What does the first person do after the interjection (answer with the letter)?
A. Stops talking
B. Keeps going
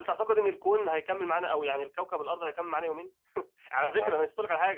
B